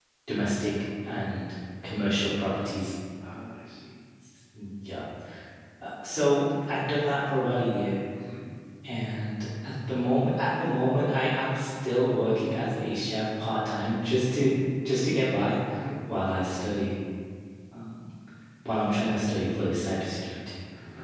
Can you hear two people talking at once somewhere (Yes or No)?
No